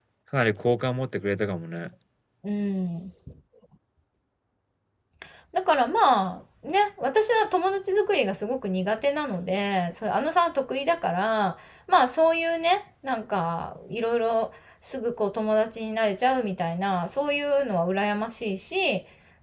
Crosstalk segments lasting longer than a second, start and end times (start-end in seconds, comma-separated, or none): none